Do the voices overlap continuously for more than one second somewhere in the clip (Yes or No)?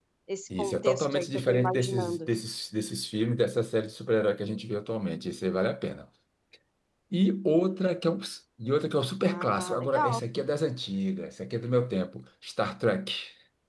Yes